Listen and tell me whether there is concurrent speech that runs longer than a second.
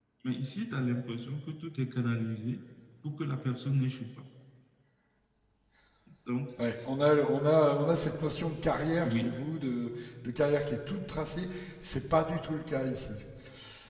No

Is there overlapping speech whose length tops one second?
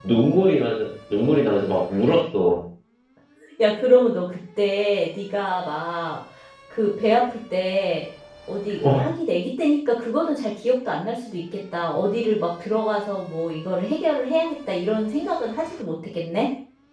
No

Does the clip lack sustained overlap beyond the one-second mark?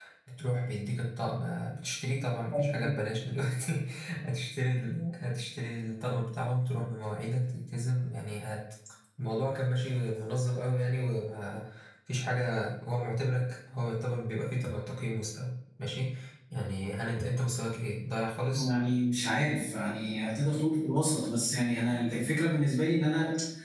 Yes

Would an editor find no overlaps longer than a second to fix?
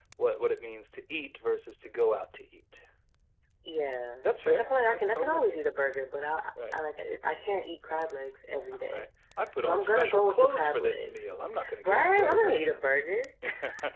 No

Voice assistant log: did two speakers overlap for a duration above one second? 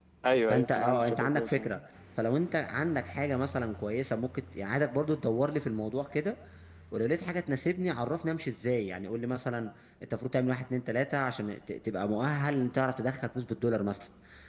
Yes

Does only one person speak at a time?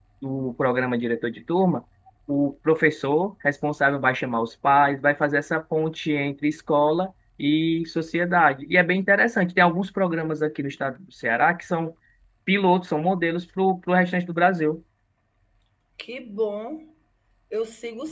Yes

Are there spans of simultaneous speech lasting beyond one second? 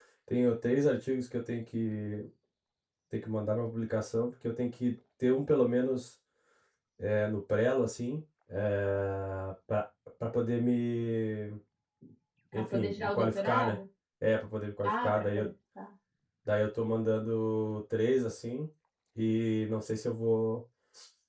Yes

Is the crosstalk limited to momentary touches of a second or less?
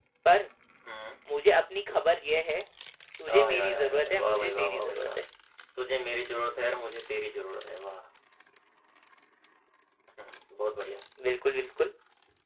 No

